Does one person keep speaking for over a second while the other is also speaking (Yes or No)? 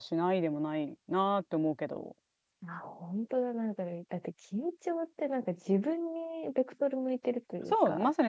No